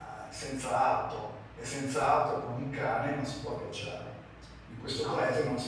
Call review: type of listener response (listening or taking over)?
listening